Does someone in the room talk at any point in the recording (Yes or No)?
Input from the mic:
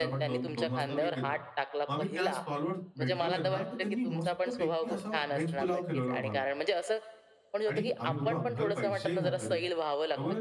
Yes